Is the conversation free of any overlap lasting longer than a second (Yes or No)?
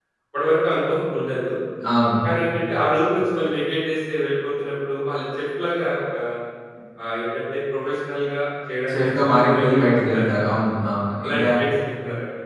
No